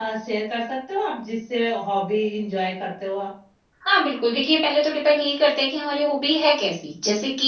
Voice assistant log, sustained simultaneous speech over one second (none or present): none